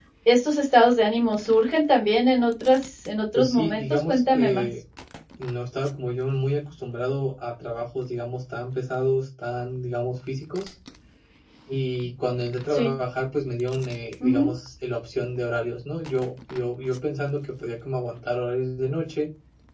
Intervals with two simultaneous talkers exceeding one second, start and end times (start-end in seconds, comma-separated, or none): 3.4-4.7